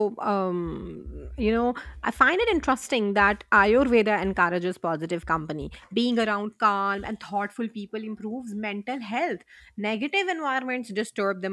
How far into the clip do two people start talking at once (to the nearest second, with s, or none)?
none